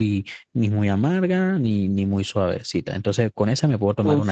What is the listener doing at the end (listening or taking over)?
taking over